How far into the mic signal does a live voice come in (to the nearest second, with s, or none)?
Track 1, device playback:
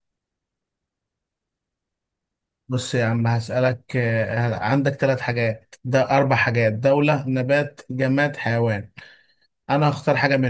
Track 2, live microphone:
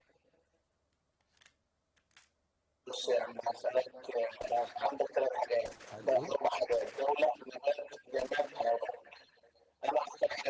6 s